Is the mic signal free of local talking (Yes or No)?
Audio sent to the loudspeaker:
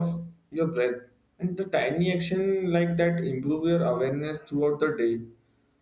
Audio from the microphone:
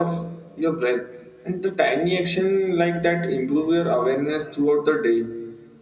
Yes